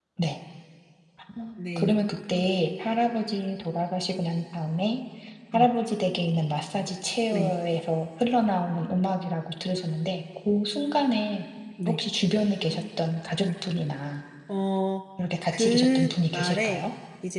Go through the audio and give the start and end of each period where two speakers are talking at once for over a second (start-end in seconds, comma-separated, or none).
15.5-16.9